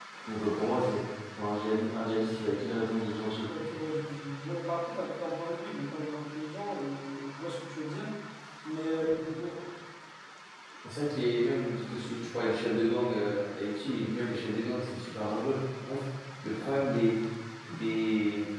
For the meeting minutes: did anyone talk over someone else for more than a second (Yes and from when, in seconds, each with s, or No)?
No